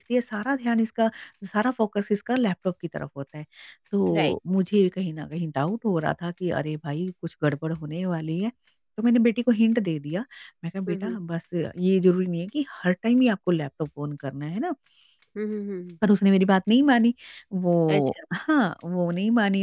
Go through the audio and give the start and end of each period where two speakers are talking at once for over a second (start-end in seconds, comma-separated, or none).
none